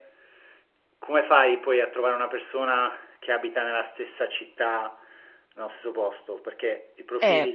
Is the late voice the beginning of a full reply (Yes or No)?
Yes